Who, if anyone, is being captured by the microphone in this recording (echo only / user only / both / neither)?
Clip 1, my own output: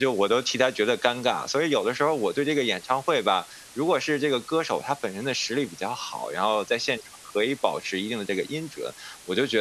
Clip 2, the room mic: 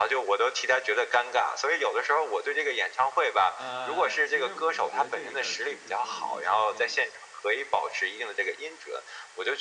both